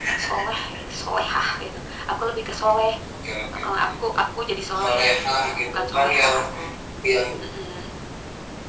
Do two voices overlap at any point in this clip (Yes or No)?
Yes